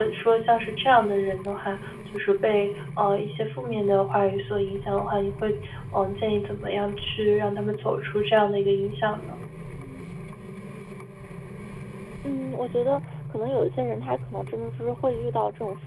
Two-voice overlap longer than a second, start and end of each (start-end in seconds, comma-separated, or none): none